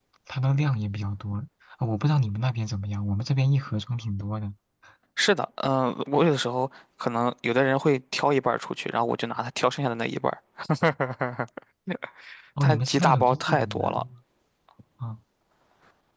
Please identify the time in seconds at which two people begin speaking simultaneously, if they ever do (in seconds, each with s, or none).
12.6 s